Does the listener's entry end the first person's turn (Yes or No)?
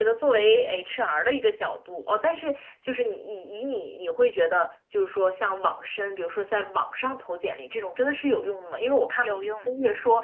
No